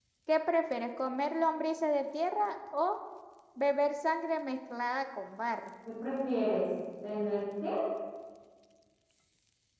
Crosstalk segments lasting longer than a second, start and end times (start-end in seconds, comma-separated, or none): none